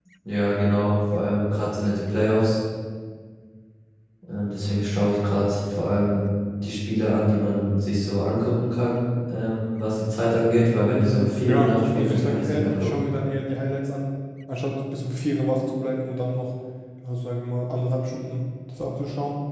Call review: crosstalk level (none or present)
present